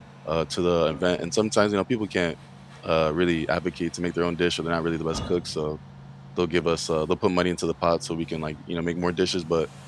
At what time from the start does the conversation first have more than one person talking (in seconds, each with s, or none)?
none